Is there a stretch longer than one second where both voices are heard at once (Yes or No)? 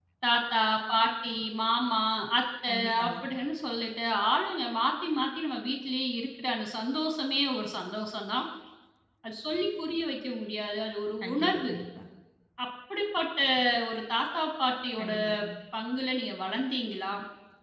No